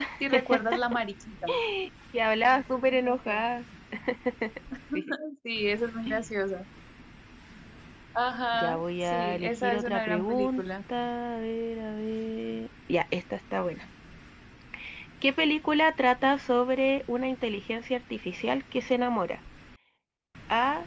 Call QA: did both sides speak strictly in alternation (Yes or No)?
No